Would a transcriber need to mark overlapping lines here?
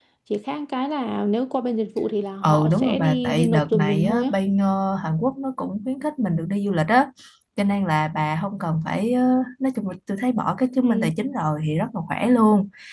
Yes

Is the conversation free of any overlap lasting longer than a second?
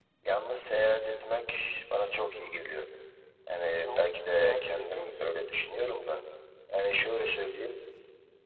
No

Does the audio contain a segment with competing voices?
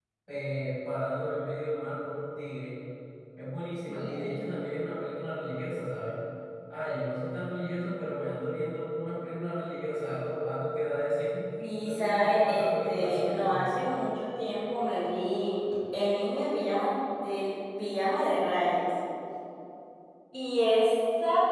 Yes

